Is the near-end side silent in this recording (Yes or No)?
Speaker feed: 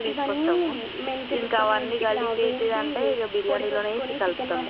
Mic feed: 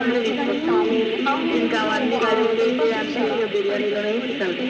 No